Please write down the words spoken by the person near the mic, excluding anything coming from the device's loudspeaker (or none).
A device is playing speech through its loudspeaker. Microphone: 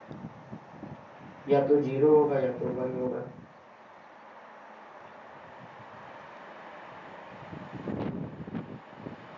या तो जीरो होगा या तो वन होगा